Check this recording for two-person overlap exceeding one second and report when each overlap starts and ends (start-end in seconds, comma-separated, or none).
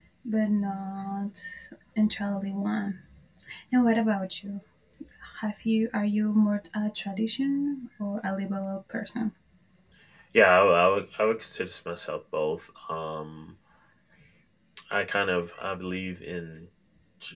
none